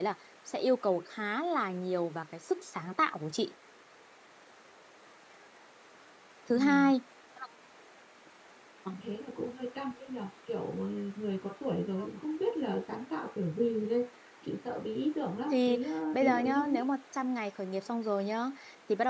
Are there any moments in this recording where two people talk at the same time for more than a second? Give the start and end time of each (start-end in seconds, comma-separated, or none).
15.5-16.8